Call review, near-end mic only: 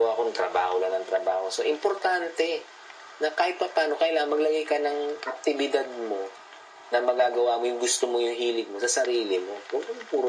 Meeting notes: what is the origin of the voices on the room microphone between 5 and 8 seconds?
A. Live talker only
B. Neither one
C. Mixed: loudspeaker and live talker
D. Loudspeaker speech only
D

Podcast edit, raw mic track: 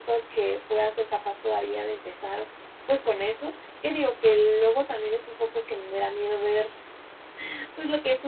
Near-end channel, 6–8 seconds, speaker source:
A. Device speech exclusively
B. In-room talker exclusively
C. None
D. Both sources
A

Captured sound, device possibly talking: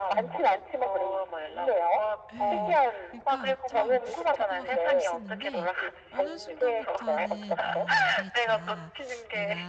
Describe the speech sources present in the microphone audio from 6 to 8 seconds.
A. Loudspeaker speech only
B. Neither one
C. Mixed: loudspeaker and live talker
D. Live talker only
C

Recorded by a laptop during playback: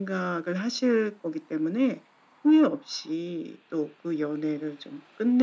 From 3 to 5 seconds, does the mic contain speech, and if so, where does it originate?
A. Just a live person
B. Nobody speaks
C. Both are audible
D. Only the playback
D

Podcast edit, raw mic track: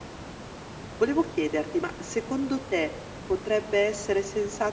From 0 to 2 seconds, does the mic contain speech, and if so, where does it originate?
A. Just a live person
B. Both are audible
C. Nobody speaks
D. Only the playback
A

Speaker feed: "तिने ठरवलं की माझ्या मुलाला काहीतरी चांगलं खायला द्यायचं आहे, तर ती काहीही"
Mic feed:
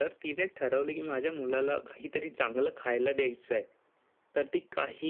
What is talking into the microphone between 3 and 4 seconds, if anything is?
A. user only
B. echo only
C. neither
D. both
B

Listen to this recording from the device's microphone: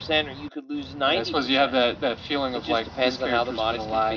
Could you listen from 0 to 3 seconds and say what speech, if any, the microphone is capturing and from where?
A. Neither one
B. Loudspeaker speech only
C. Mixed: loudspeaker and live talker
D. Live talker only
B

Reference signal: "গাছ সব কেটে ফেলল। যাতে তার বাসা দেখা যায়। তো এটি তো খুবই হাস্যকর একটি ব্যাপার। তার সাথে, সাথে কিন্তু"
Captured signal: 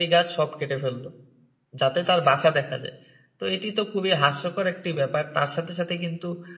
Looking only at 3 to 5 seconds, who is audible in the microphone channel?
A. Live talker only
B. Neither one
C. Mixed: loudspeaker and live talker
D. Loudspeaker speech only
D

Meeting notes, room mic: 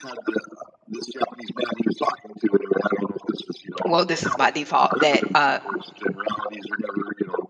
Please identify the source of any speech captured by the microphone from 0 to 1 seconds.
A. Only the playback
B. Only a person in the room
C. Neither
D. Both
A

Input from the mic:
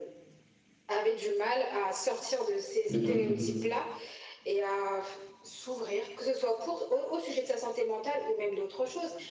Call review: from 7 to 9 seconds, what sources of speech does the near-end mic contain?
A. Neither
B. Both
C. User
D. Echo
D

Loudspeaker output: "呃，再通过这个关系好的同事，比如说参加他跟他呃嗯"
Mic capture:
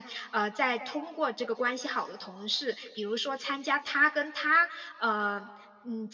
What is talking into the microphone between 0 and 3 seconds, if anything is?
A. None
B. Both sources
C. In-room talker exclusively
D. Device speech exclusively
D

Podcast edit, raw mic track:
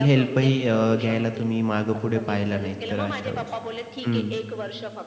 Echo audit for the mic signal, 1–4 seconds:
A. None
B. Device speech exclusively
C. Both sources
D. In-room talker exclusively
C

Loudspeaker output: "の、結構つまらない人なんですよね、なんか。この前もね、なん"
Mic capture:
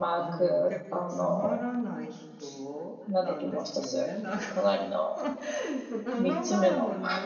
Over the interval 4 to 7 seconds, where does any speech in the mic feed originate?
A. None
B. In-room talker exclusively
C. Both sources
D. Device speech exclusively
C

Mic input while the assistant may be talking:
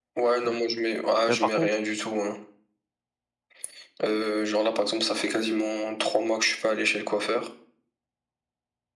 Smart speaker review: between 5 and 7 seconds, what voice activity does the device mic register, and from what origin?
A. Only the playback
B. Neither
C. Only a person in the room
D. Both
A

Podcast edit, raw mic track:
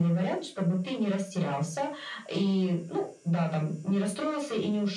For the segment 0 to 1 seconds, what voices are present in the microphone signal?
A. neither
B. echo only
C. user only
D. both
B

